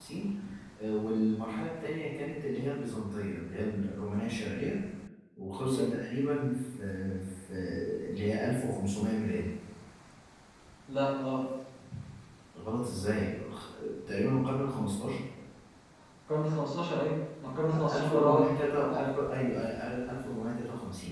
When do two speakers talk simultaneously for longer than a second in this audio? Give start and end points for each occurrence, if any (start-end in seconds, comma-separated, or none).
17.9-19.2